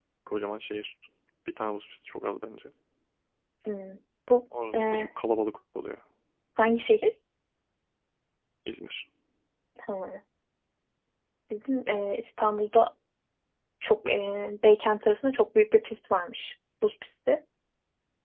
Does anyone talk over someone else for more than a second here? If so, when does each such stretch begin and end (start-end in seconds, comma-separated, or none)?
none